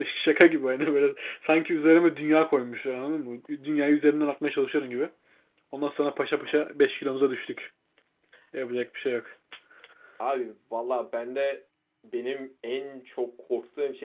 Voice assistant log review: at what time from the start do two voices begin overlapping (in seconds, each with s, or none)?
none